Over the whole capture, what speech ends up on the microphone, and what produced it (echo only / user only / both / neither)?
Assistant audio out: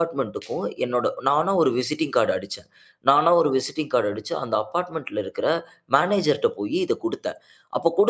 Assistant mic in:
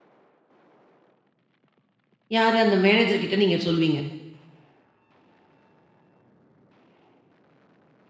user only